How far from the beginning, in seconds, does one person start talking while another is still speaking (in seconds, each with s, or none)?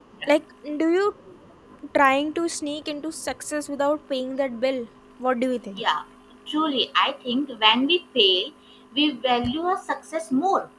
none